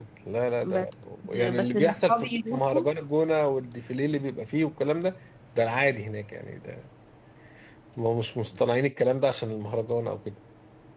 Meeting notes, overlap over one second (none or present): present